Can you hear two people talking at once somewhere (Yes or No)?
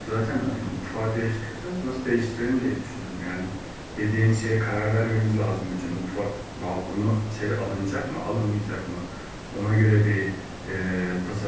No